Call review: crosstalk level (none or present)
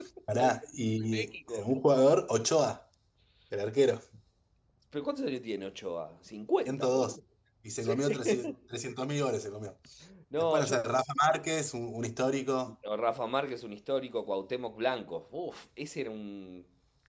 present